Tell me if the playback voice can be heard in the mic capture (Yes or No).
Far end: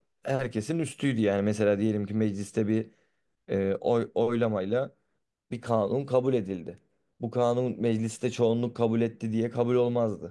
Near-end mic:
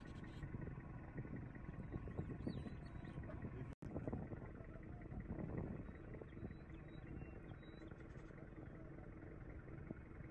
No